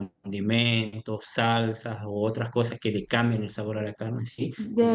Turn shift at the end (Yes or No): No